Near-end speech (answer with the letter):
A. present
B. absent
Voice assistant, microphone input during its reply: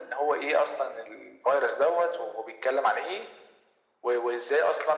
B